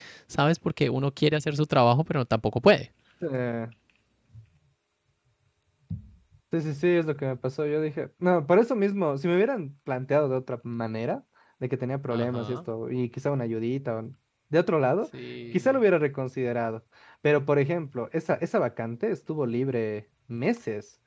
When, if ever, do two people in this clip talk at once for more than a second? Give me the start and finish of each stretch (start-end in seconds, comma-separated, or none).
none